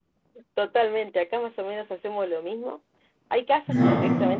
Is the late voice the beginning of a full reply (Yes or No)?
No